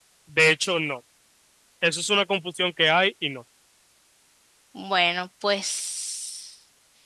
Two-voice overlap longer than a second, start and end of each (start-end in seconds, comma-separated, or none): none